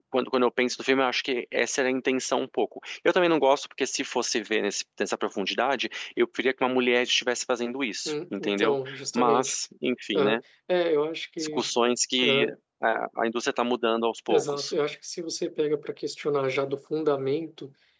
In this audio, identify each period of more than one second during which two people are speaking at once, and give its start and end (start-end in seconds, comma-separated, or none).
8.1-9.5